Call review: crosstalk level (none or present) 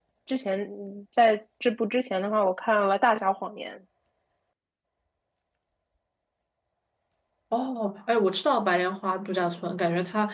none